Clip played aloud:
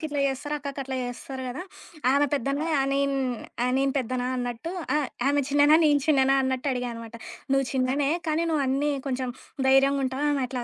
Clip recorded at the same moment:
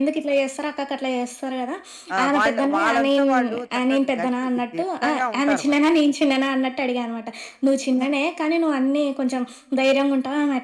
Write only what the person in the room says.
ఆహ్, వాళ్ళు వాళ్ళంతా వాళ్ళు చక్కగా గట్టి దిట్టంగా ఉంటారు వాళ్ళు.

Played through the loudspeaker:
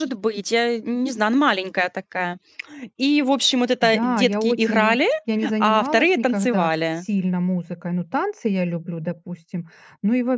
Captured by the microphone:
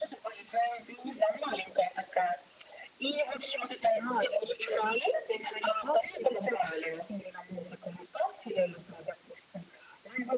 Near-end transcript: none

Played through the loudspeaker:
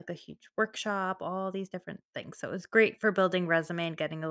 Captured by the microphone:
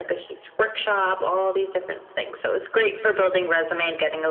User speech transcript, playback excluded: none

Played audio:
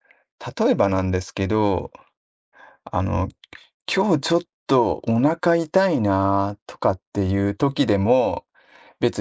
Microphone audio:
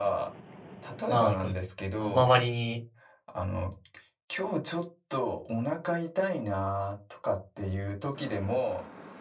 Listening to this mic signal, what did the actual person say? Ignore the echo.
まあ、そうですね。あの、周りに

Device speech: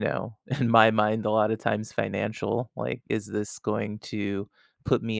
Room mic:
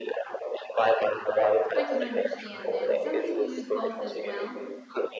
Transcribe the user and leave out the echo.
I can understand that. And Some people use both as well.

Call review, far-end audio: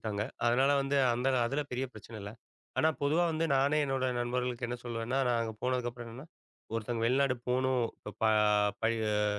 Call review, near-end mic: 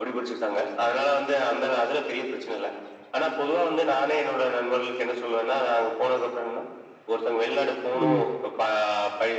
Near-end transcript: ம்.

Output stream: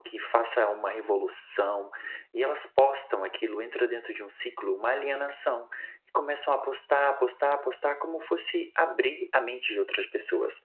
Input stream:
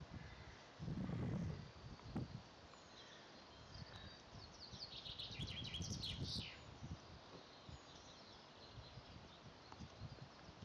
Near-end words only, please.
none

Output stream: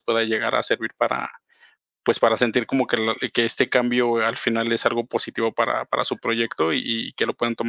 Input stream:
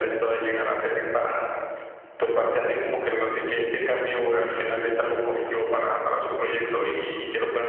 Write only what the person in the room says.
Ajá.

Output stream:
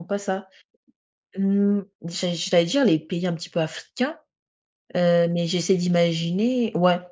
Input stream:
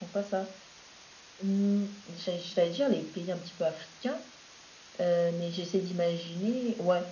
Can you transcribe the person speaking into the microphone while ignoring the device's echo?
none

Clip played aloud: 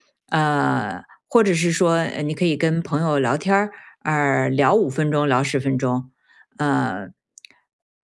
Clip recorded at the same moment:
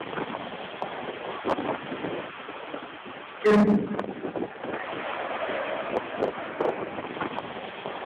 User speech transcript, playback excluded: 嗯

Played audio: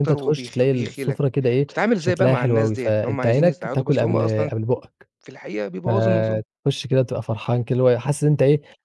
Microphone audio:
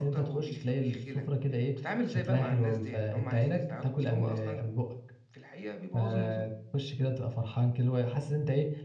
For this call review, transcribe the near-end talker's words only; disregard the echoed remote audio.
none

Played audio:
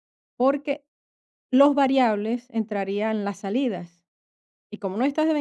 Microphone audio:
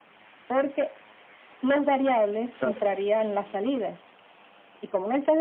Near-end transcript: Claro,

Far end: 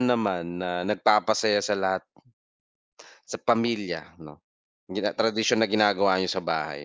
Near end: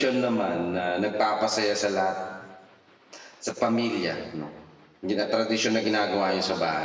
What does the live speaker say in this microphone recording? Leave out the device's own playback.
none

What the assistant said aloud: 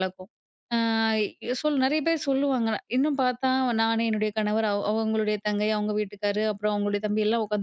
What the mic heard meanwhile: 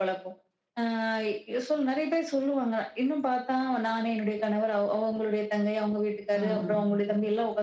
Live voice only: ம்.

